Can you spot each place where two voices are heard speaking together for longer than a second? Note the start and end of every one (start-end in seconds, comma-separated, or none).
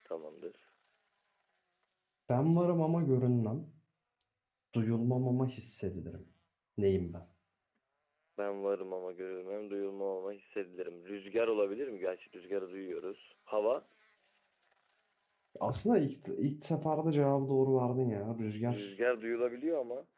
none